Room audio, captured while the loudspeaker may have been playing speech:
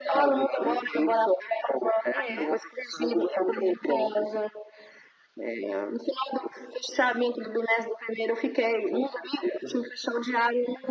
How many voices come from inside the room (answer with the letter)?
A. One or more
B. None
A